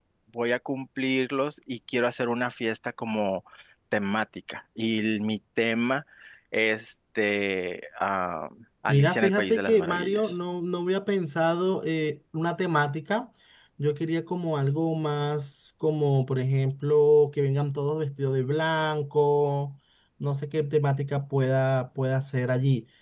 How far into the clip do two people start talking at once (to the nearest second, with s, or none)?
9 s